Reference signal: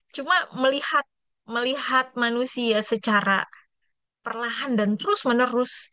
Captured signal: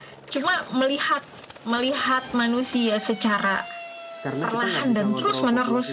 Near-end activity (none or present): present